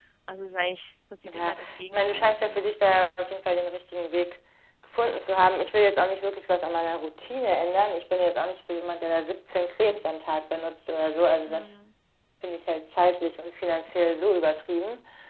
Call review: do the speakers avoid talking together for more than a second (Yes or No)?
No